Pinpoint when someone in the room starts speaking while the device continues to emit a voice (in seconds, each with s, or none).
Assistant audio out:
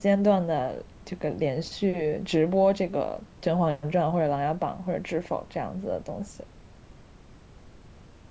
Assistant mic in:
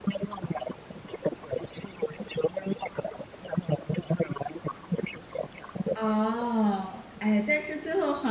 5.9 s